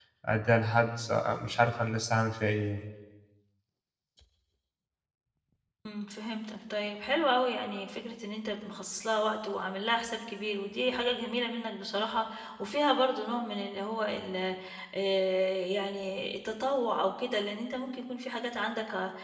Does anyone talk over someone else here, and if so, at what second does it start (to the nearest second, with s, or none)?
none